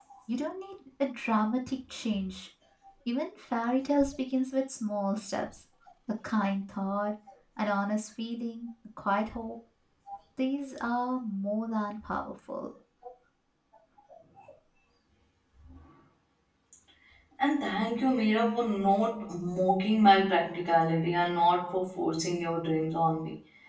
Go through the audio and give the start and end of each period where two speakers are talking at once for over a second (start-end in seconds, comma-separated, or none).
none